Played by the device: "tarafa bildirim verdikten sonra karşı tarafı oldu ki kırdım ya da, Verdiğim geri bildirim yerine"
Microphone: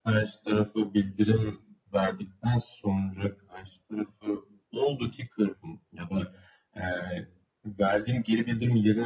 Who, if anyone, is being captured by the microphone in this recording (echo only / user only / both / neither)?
echo only